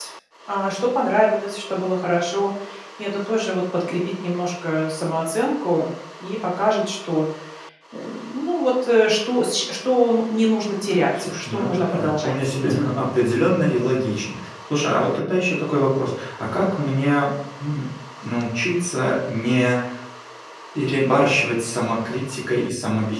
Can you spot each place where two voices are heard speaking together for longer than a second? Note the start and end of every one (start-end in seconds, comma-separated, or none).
11.2-12.6